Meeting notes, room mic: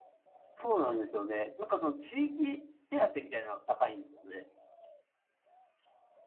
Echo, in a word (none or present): none